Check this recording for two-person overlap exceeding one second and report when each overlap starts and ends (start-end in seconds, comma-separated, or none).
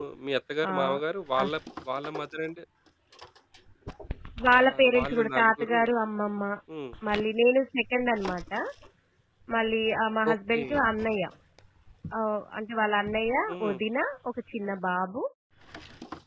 4.6-5.8